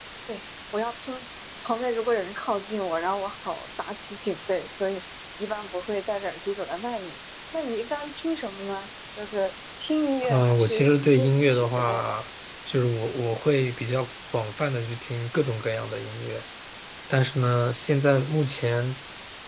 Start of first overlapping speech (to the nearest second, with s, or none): 10 s